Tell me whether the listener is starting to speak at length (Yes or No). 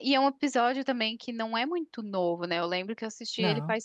No